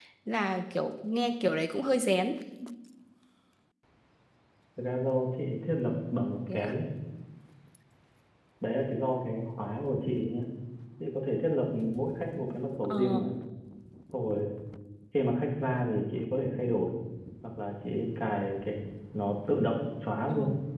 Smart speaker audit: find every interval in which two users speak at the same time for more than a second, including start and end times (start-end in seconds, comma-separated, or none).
none